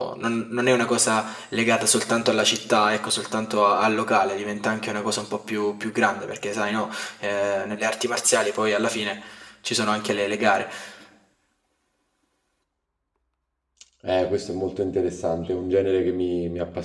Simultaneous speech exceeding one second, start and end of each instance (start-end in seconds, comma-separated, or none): none